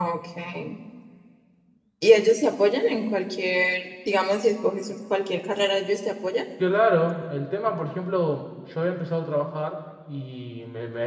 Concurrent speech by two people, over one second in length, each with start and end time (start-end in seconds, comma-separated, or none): none